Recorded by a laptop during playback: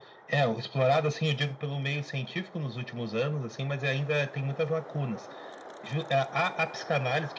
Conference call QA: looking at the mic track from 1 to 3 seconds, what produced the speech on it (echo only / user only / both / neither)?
echo only